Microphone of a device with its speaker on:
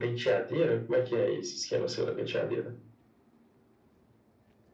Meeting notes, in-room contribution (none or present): none